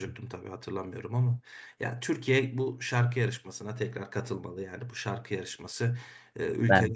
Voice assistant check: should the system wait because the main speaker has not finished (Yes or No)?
Yes